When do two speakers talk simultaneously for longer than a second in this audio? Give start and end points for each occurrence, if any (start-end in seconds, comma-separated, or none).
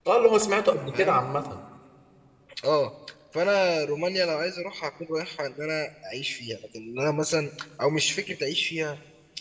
none